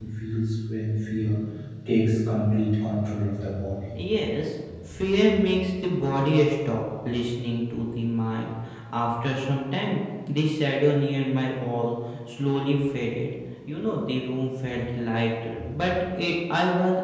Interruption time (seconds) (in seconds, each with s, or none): none